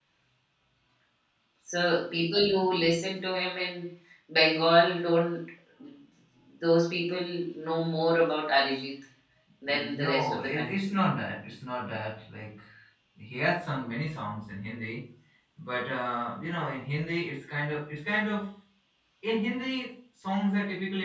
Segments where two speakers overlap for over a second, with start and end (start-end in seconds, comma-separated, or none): 9.7-11.0